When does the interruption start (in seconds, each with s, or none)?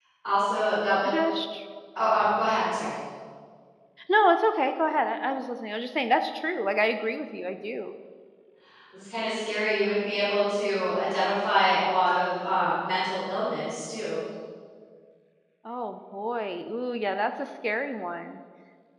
none